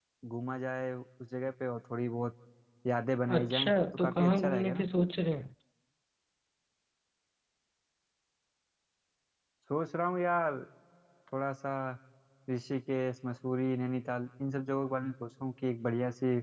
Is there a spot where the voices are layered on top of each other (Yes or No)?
Yes